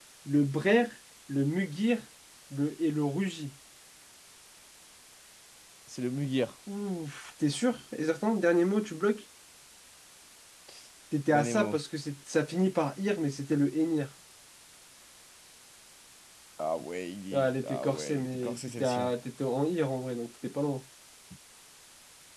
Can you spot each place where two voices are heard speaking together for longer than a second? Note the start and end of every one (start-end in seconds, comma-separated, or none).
17.3-19.1